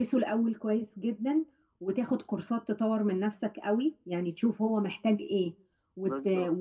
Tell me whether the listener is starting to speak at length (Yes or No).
No